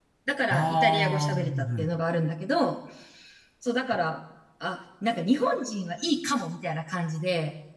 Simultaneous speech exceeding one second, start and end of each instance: 0.5-1.9

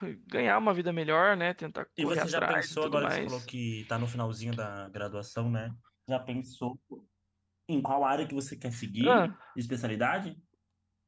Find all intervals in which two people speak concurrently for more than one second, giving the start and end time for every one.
2.0-3.4

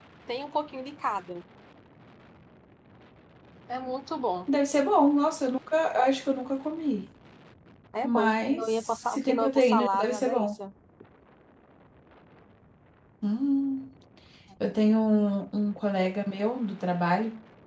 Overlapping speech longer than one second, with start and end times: 8.0-10.5

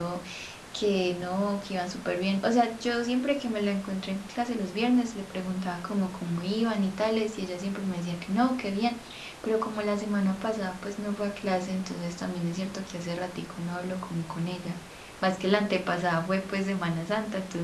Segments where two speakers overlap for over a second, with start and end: none

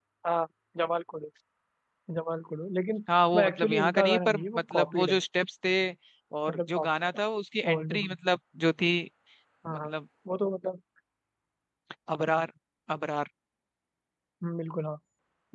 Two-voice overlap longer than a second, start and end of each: 3.4-5.2

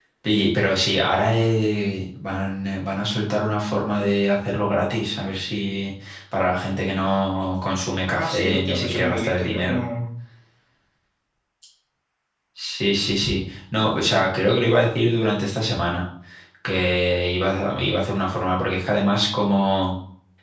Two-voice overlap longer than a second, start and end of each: 8.1-9.8

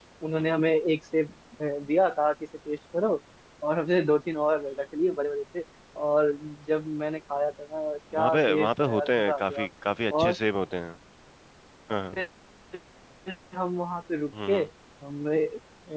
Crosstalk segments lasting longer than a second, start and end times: 8.2-9.7

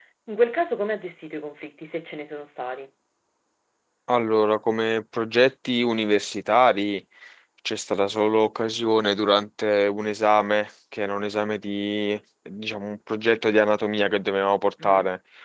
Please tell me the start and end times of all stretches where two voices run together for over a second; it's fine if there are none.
none

